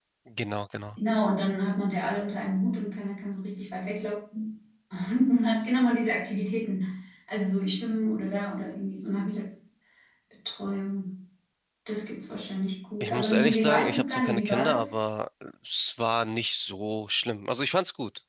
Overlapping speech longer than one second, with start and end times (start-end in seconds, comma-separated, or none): 13.0-14.9